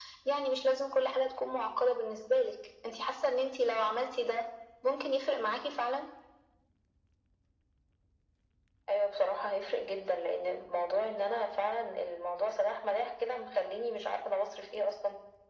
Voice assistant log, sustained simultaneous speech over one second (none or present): none